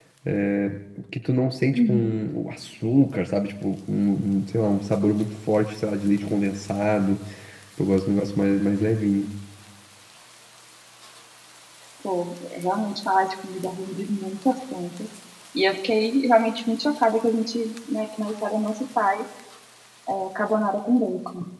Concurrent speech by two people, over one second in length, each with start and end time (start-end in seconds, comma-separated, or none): none